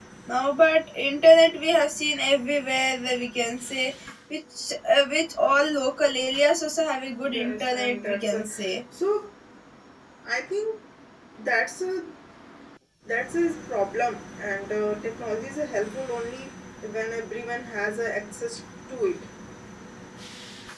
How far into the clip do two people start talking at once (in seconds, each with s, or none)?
7.2 s